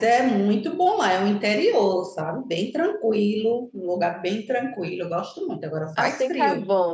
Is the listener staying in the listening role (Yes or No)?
No